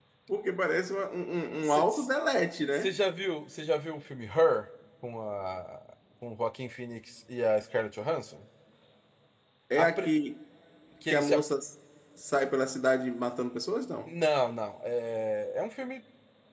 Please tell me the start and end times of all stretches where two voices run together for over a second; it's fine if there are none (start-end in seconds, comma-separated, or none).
none